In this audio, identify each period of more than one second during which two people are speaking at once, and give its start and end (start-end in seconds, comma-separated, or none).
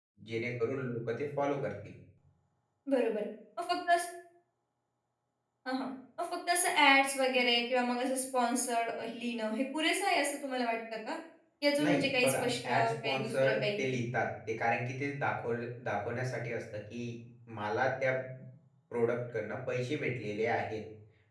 11.8-13.9